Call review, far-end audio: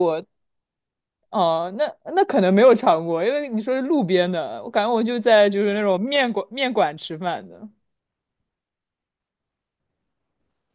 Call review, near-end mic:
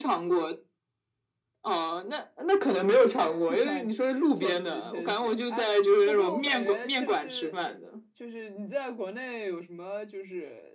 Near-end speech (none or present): present